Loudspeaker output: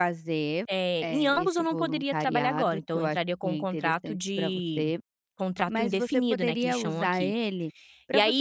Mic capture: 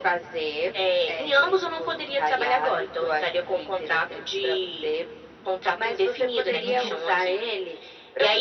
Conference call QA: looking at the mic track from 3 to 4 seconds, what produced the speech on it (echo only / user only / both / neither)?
echo only